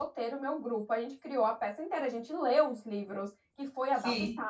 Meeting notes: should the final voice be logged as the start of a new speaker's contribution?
No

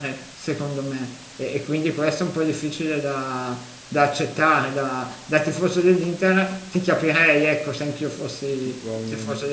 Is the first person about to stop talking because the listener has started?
Yes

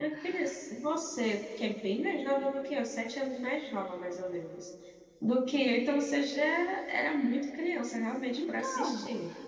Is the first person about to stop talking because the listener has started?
Yes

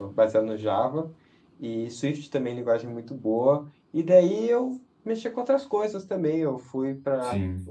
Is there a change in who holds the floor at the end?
No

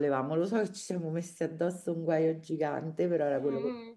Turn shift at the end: Yes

